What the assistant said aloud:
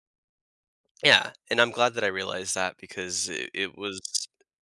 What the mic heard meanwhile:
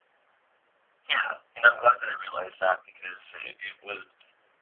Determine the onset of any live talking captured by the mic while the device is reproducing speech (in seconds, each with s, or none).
none